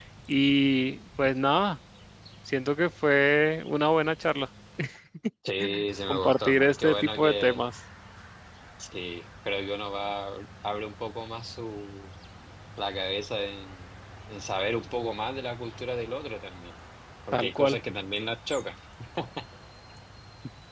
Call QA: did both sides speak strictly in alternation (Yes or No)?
No